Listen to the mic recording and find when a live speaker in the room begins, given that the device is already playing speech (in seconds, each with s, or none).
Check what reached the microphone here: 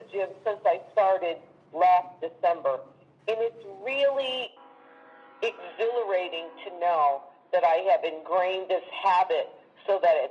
none